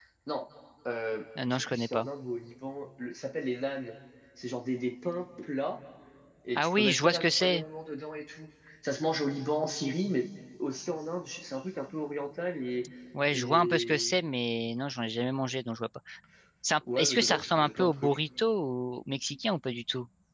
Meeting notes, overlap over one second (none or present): present